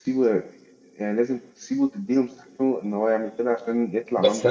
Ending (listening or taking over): taking over